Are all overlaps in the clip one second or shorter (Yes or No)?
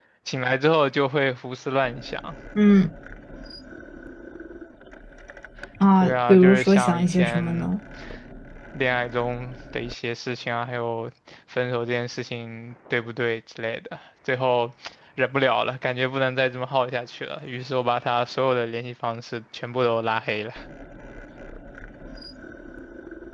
No